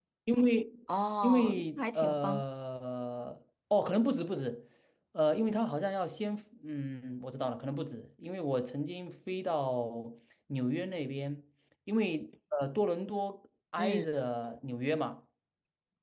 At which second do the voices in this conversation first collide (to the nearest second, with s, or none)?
1 s